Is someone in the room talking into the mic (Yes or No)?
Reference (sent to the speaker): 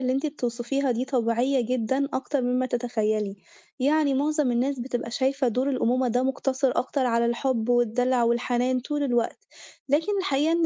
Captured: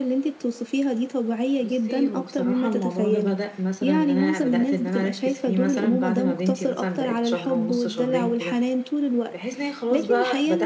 Yes